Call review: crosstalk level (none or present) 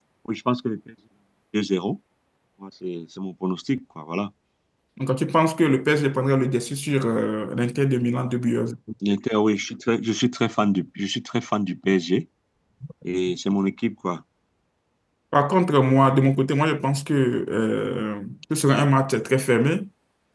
none